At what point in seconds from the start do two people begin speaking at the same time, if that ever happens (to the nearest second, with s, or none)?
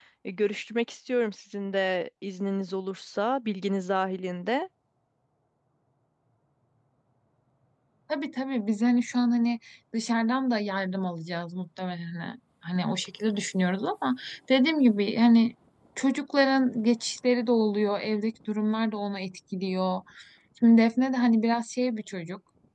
none